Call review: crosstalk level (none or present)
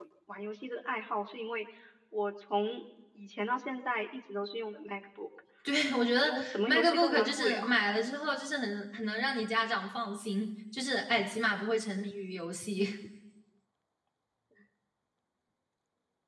present